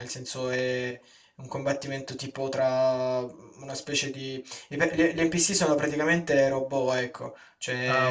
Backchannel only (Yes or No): Yes